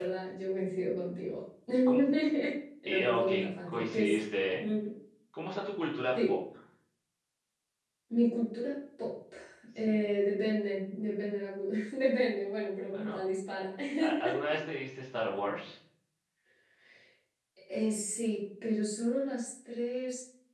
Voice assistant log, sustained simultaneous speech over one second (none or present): present